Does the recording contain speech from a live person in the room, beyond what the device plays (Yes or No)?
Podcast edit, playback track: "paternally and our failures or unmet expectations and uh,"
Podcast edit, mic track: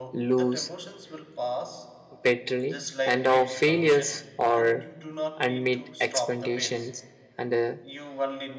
Yes